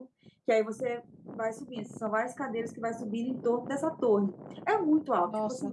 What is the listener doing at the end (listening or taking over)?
listening